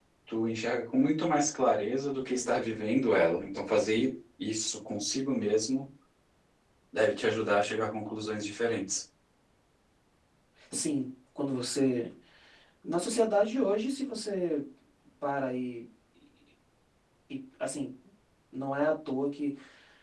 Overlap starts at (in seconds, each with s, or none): none